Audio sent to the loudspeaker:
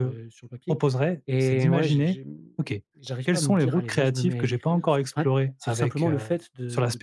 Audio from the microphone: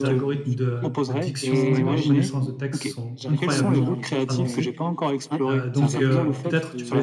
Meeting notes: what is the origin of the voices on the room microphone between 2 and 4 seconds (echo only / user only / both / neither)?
both